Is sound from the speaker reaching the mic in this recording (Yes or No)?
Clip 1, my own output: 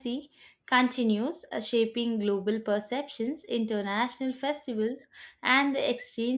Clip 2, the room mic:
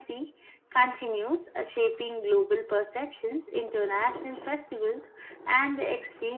Yes